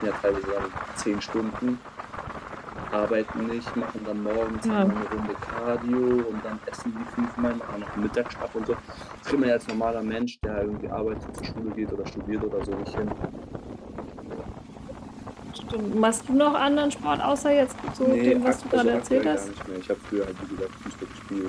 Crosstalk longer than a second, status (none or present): present